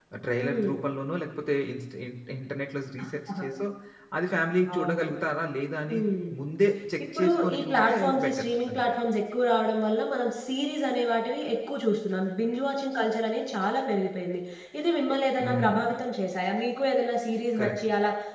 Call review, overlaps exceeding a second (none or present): present